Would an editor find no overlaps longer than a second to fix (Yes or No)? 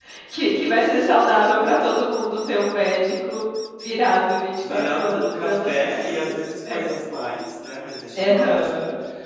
No